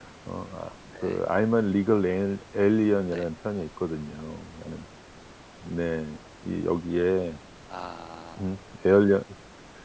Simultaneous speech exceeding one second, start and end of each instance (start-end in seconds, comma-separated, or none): none